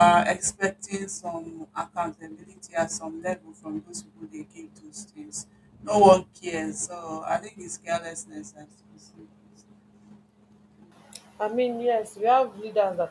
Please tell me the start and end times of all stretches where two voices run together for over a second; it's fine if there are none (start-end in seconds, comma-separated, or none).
none